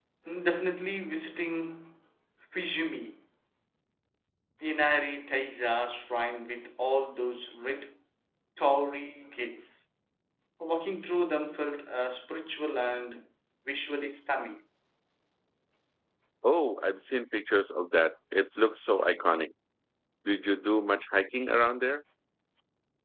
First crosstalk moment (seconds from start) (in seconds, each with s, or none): none